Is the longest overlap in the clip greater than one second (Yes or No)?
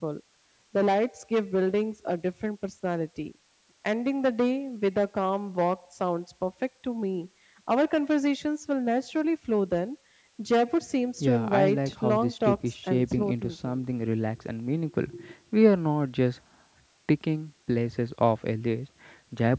Yes